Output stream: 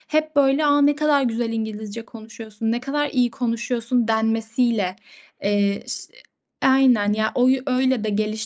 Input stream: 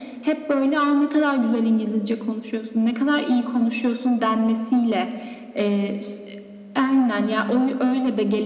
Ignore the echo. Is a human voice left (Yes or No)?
No